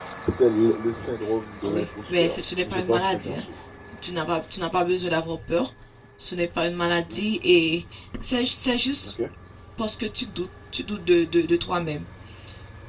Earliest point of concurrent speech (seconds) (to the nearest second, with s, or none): 2 s